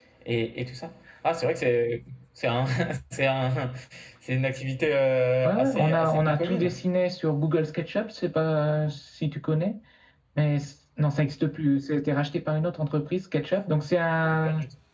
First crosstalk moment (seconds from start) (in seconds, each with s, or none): 5.4 s